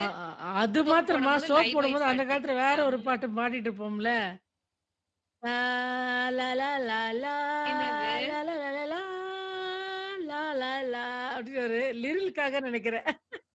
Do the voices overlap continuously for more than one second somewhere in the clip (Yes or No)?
Yes